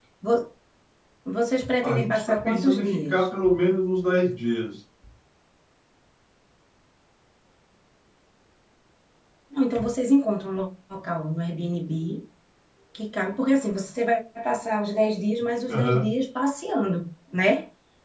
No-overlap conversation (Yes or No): No